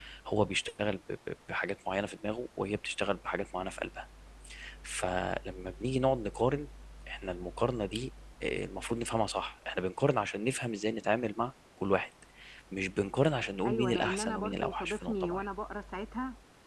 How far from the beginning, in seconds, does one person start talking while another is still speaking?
13.6 s

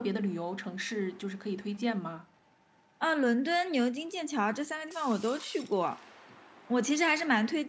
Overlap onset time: none

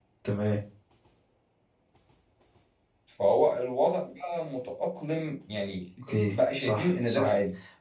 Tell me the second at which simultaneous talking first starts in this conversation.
6.0 s

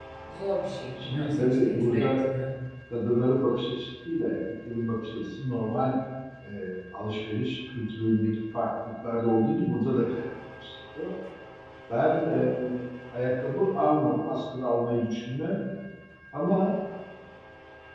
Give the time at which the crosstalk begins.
1.0 s

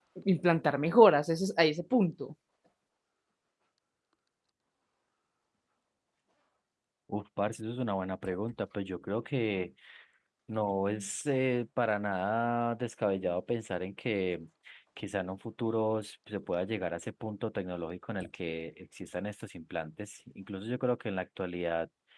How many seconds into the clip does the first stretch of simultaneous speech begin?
none

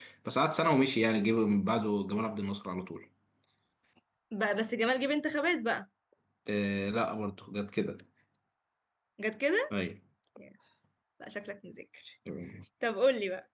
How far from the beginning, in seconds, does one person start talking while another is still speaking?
none

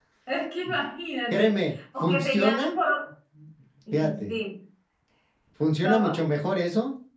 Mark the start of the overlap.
1.3 s

